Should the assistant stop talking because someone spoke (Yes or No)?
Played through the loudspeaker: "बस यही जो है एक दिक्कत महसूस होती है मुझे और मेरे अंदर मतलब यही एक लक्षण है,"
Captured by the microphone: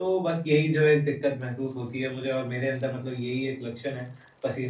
No